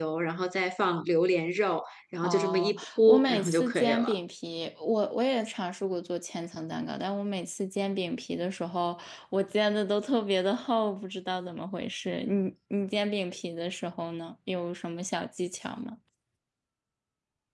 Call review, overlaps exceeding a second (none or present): present